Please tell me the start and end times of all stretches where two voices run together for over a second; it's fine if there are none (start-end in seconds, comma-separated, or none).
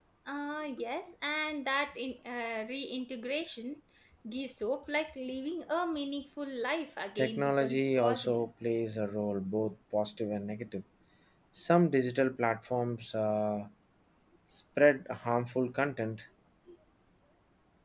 7.2-8.4